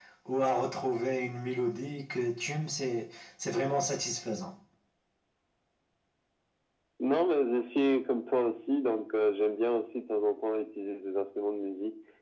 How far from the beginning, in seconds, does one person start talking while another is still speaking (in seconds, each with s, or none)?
none